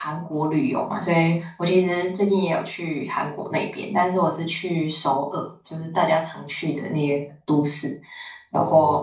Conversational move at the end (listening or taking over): listening